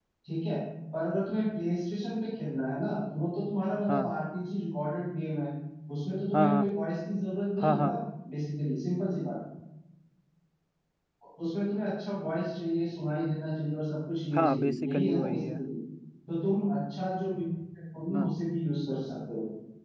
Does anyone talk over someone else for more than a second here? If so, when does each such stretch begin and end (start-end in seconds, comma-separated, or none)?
14.4-15.6